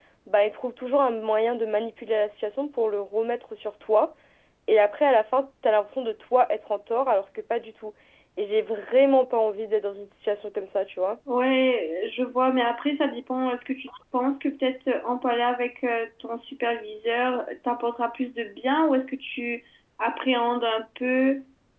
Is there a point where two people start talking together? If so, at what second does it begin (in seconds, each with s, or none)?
none